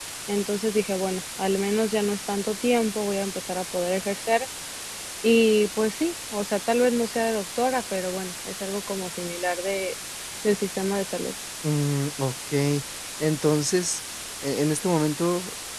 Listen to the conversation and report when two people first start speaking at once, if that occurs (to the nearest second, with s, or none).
none